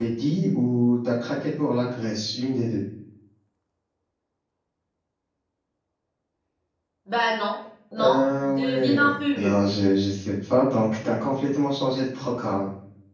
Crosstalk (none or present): present